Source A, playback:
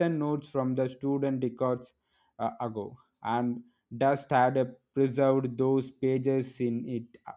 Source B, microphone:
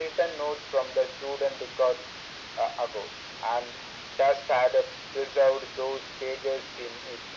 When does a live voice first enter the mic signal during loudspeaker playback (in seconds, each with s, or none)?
none